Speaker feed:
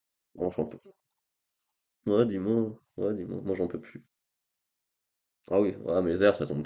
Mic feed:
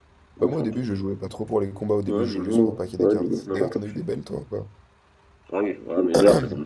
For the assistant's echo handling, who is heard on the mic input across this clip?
both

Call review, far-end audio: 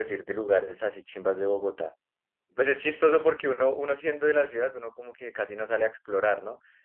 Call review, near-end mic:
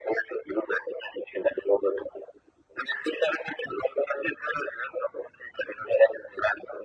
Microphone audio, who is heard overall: echo only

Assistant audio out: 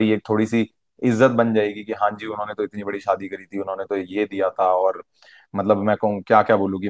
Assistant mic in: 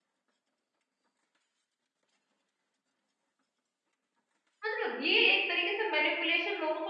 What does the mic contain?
user only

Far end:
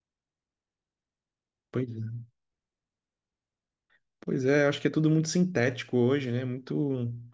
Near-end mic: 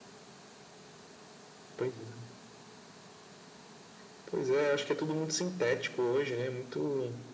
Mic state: echo only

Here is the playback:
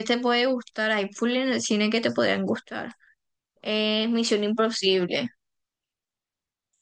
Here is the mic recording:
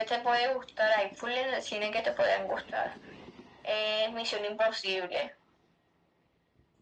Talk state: echo only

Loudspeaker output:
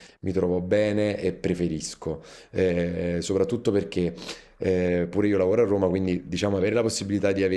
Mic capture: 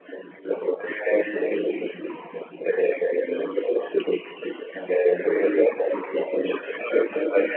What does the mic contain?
echo only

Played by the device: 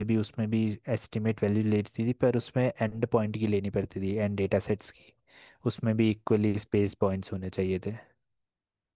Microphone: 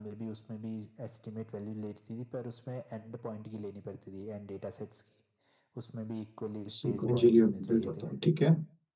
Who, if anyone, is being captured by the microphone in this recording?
both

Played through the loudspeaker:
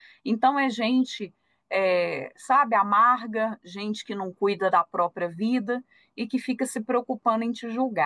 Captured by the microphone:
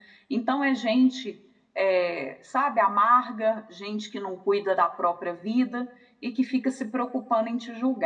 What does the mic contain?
echo only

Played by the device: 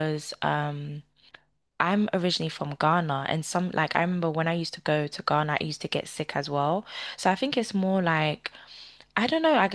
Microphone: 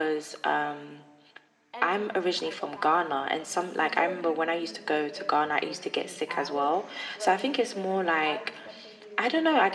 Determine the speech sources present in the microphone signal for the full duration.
both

